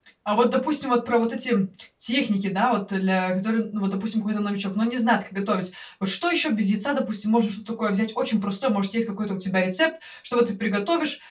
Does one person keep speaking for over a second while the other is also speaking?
No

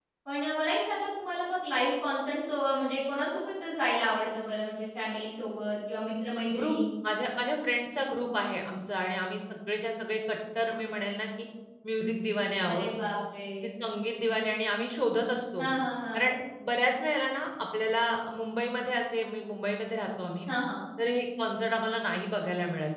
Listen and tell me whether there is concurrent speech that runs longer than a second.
No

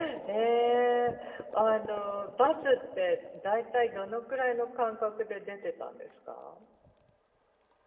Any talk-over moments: No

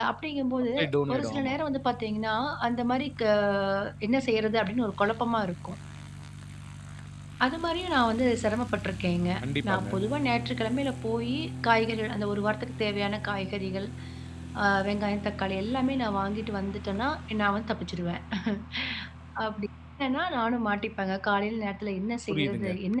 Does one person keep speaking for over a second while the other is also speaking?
No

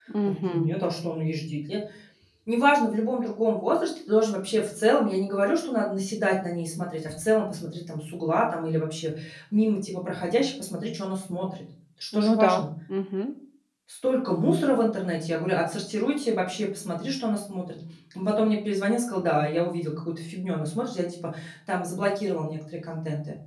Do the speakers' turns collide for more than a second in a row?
No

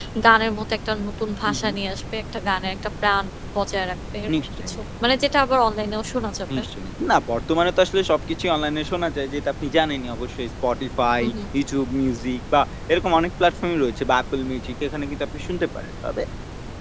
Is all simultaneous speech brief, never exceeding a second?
Yes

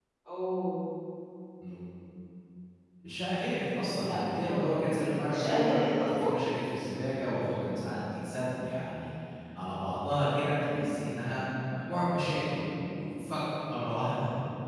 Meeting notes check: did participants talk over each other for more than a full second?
Yes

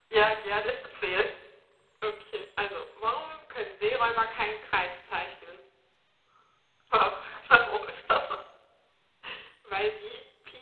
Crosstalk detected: No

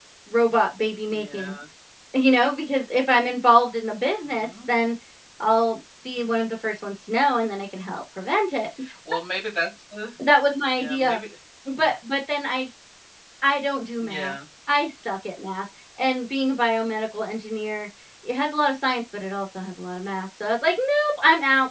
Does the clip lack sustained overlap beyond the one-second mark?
Yes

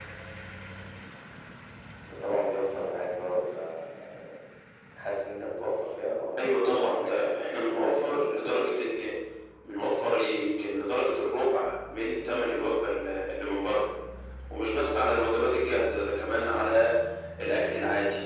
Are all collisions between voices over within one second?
No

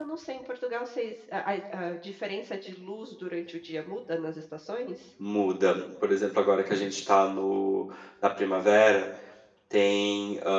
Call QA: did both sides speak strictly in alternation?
Yes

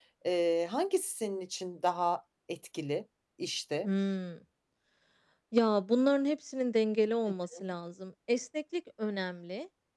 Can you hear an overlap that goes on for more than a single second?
No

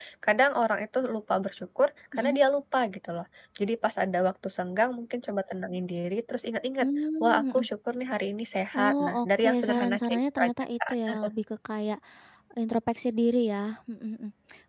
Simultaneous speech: Yes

